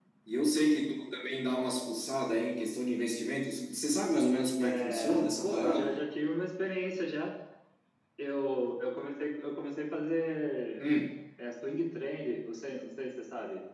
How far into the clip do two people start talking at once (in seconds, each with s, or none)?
4.6 s